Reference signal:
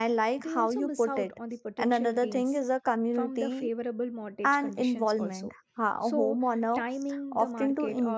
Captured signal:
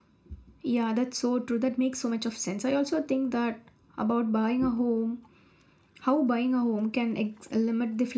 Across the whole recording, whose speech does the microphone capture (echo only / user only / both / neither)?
user only